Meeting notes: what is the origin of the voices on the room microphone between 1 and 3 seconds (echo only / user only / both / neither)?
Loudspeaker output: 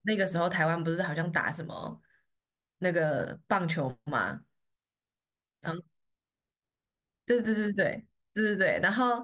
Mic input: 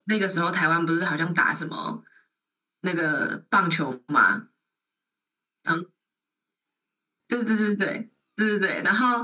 echo only